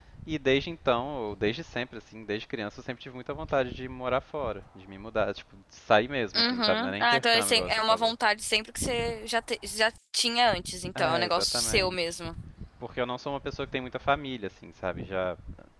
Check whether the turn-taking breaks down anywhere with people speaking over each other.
Yes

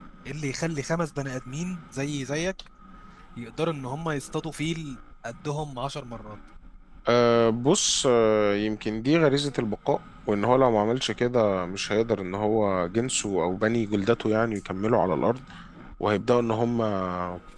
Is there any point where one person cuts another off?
No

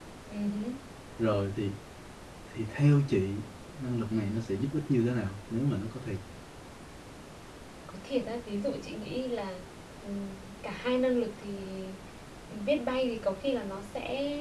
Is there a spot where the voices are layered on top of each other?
No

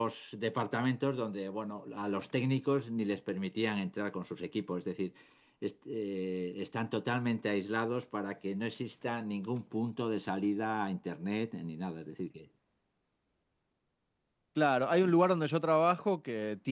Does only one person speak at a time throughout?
Yes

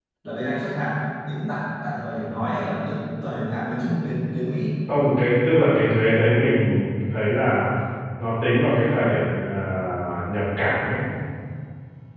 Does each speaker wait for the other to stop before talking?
Yes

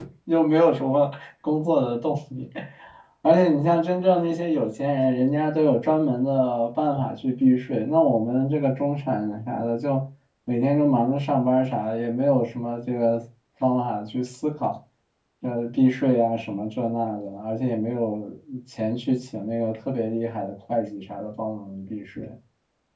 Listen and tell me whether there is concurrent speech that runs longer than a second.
No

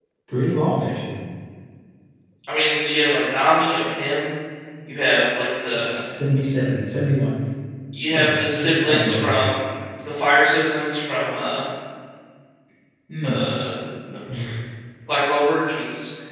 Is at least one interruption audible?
Yes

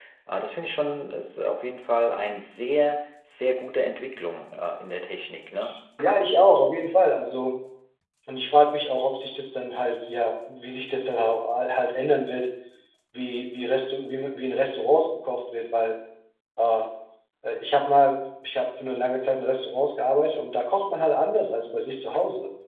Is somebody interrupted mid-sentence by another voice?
No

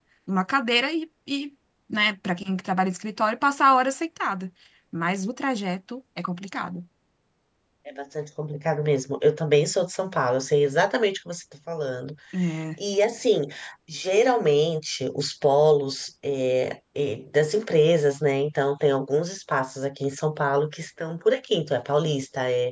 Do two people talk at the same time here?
No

